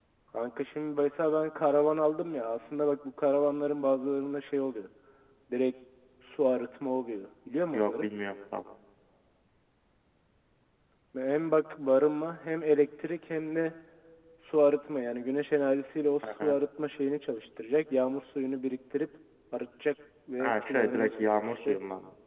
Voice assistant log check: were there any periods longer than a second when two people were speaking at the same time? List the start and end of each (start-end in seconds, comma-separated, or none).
20.4-21.8